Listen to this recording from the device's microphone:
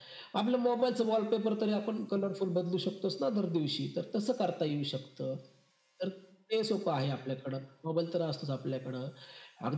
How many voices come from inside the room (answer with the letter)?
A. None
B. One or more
A